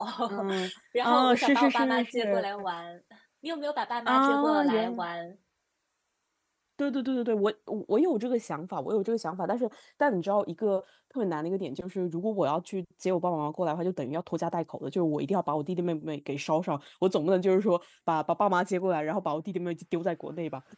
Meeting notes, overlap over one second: present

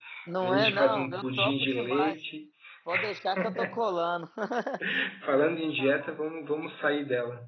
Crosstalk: present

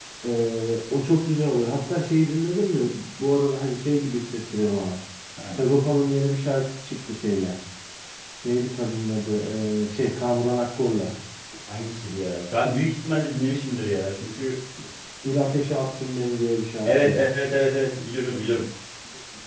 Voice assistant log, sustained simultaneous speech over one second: none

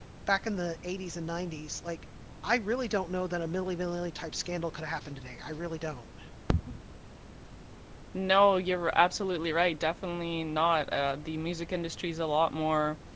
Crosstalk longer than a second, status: none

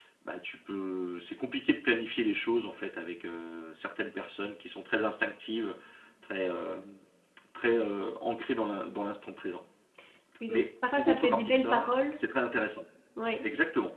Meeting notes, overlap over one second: present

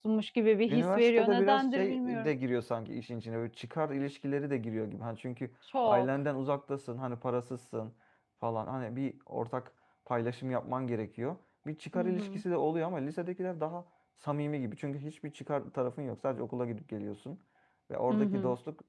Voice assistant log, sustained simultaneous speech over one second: present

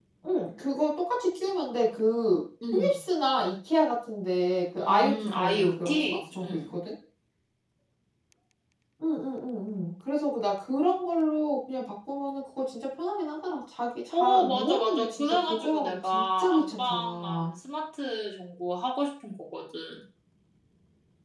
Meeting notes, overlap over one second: present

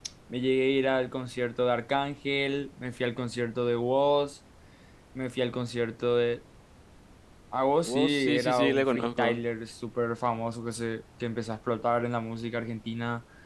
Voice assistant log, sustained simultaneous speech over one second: present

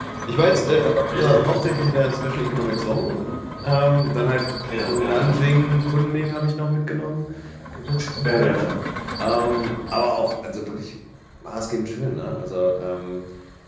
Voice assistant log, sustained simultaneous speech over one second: none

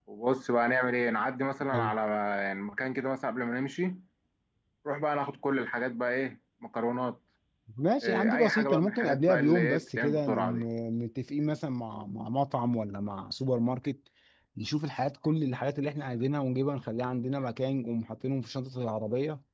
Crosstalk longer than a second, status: present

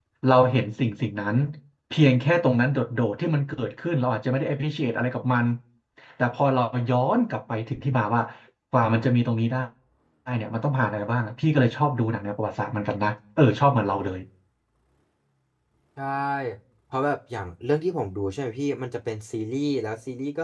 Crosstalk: none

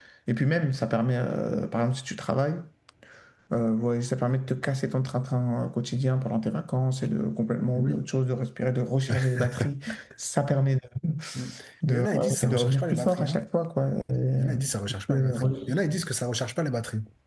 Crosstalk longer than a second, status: present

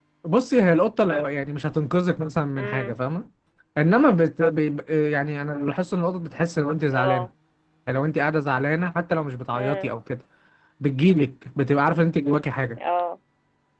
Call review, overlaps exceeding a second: none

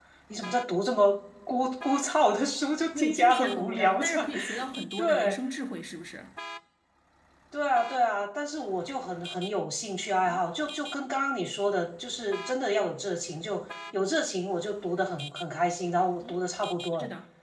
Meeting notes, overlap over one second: present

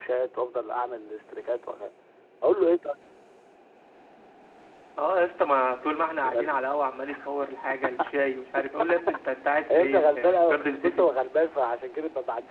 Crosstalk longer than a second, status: present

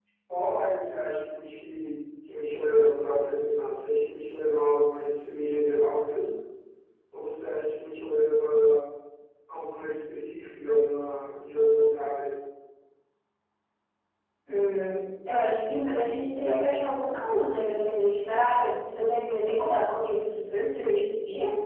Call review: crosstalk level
none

